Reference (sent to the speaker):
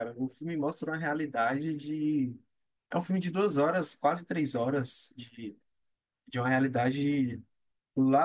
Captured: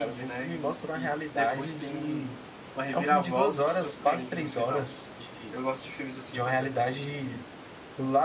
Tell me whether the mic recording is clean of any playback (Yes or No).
No